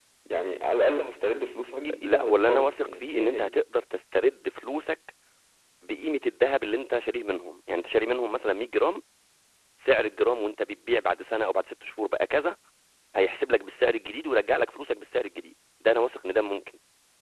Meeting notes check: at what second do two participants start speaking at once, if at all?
2 s

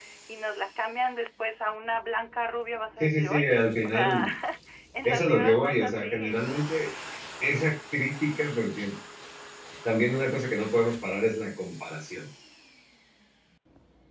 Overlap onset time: 3 s

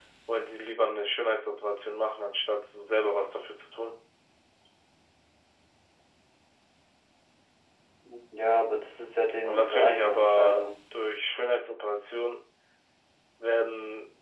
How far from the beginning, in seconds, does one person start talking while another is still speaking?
9 s

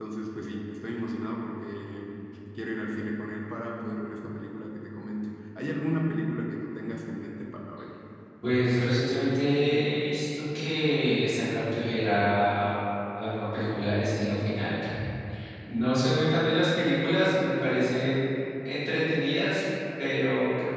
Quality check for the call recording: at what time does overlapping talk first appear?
none

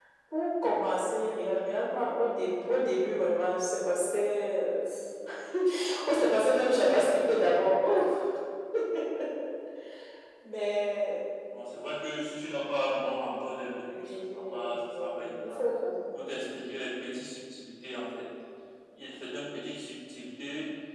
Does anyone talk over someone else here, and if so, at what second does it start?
14 s

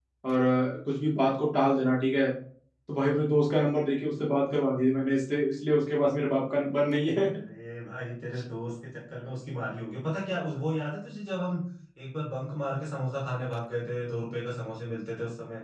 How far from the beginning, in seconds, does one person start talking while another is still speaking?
none

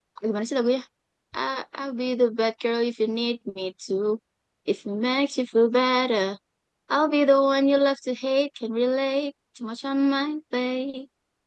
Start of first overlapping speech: none

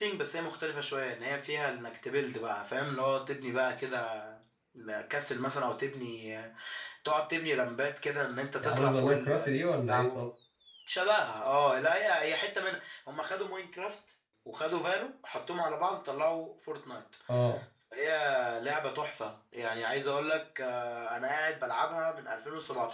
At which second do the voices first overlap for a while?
9 s

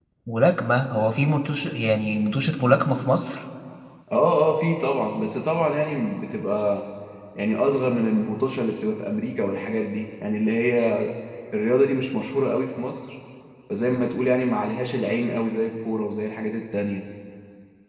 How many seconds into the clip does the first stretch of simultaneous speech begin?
none

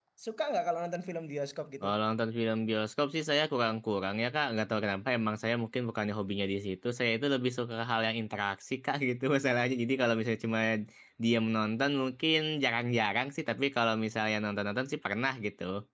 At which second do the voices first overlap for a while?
none

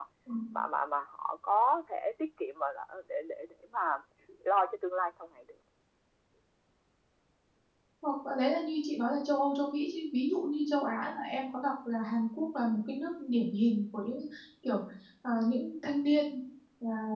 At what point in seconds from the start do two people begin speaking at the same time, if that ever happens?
none

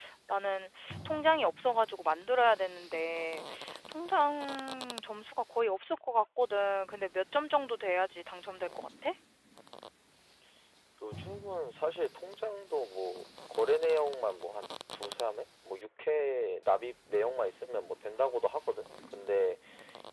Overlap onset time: none

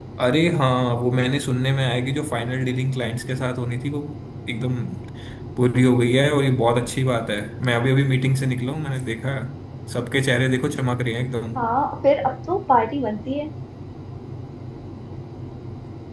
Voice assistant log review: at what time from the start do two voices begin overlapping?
none

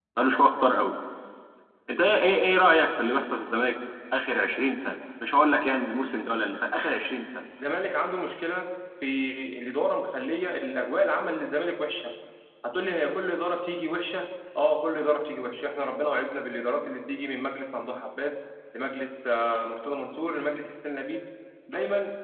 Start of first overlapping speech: none

